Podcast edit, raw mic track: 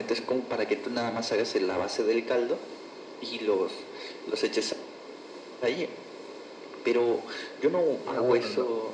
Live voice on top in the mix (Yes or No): No